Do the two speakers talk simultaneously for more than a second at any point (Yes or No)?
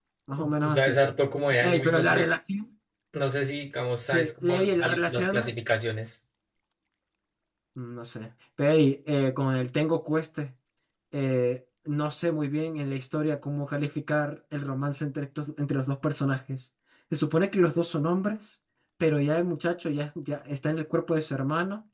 Yes